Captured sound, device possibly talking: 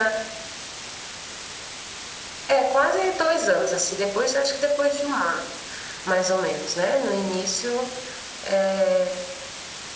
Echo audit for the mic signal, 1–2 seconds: neither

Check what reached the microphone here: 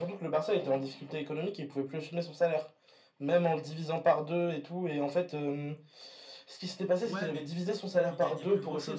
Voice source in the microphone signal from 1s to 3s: echo only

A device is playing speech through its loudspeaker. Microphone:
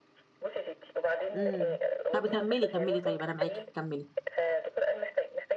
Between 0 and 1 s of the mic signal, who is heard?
echo only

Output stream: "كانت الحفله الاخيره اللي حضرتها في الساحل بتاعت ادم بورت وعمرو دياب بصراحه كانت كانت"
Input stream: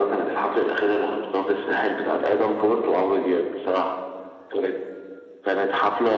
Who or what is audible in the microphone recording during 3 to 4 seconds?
echo only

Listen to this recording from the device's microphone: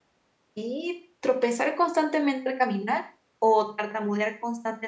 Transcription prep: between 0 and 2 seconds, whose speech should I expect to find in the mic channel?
user only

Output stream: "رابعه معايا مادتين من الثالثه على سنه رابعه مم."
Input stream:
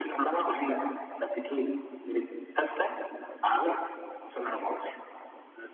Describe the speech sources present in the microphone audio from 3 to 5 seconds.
echo only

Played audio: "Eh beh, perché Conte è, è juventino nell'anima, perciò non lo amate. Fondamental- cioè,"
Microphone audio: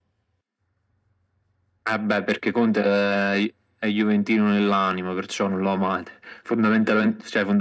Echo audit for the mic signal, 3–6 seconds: echo only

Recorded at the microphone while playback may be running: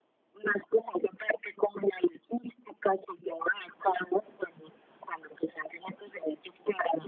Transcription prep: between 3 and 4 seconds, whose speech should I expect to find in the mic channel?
echo only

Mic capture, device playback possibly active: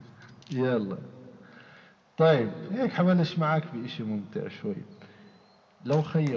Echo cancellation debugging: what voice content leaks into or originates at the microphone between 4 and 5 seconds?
echo only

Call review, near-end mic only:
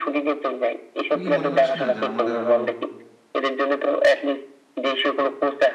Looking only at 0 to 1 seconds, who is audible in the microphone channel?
echo only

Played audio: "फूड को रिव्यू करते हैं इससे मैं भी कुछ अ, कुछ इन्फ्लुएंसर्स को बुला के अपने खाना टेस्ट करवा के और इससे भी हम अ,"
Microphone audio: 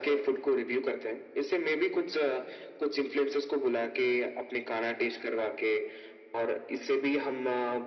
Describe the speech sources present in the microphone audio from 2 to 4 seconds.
echo only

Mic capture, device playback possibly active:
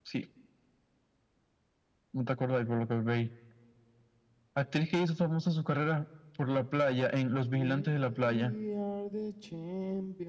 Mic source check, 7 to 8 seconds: both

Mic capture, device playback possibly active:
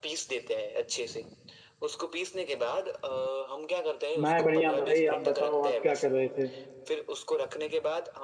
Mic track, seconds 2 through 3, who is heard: echo only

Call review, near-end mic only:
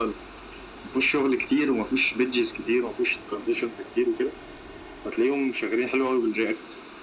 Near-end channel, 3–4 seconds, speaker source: echo only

